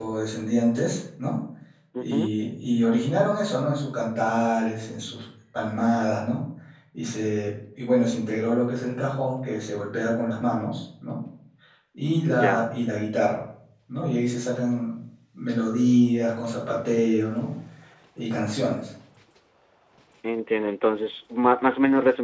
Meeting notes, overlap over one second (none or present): none